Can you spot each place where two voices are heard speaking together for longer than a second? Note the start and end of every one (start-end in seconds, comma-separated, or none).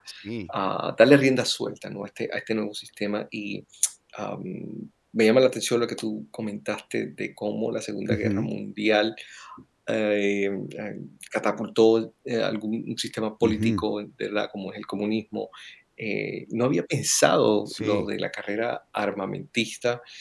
none